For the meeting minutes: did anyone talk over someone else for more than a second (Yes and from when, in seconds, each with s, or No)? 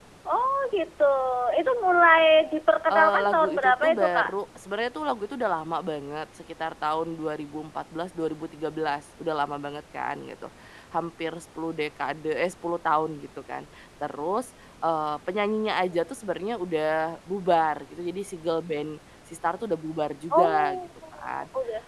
Yes, from 2.9 s